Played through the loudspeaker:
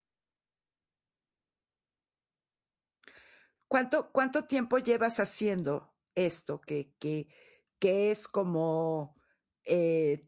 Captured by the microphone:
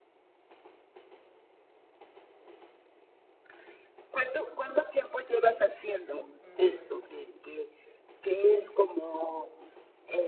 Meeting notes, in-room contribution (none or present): present